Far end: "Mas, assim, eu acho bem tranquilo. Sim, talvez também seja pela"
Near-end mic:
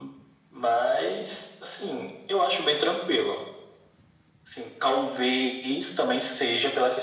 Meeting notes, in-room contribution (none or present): none